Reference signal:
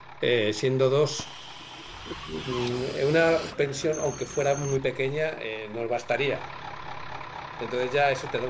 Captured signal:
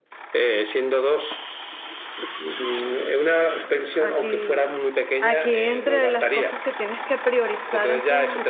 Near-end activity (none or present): present